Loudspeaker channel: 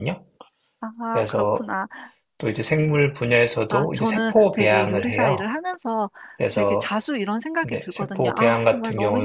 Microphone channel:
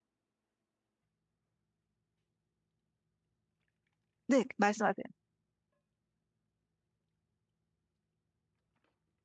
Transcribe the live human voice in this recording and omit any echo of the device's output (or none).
네, 말씀하세요.